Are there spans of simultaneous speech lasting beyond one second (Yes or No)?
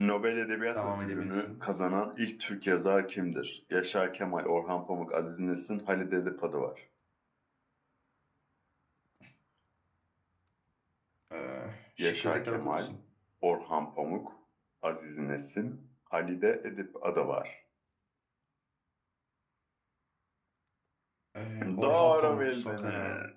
Yes